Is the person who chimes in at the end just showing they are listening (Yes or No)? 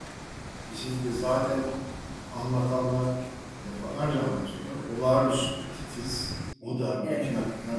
Yes